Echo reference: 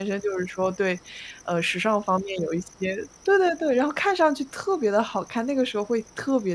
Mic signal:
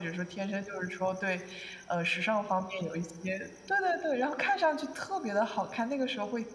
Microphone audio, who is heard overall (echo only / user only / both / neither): echo only